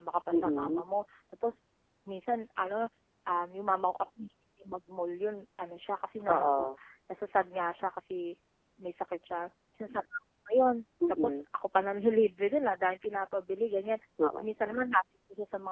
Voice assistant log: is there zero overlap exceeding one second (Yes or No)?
Yes